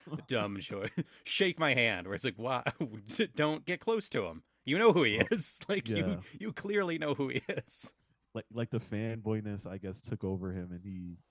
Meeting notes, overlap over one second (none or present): none